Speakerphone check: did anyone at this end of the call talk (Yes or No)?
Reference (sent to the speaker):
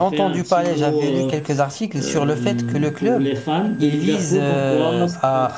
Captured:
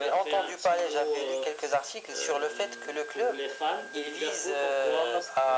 No